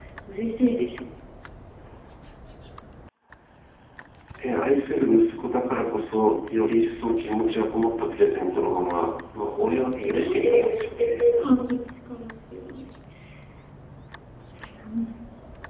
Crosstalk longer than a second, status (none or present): present